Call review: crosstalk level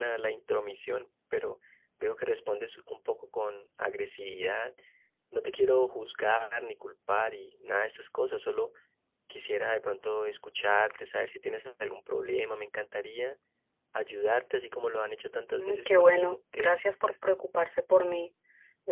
present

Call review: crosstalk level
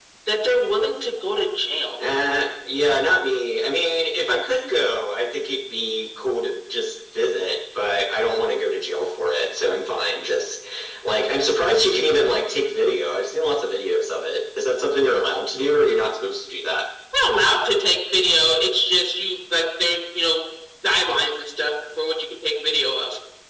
none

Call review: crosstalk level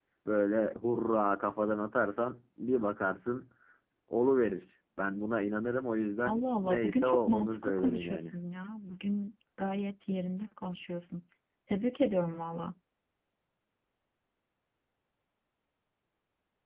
present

